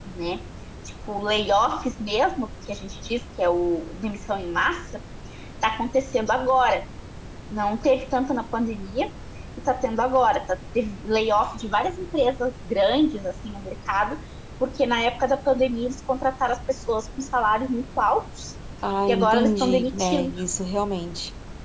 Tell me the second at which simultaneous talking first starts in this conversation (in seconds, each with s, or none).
19.1 s